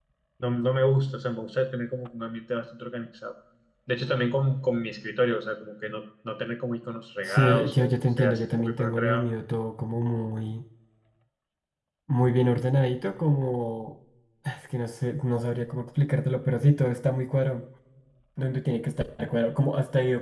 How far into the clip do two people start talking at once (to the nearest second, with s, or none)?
7 s